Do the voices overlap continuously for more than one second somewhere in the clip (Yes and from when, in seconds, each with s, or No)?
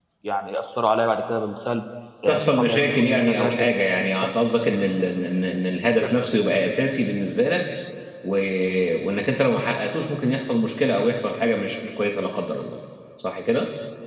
Yes, from 2.3 s